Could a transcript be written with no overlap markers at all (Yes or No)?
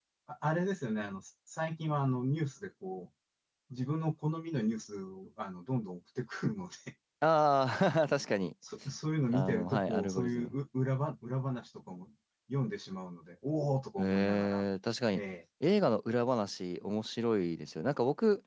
No